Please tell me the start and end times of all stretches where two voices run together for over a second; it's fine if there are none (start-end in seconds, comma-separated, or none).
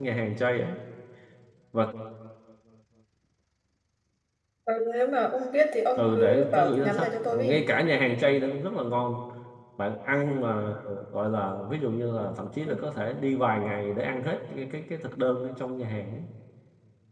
6.0-7.6